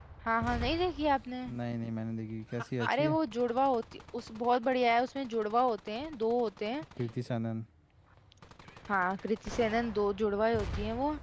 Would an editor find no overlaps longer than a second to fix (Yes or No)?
Yes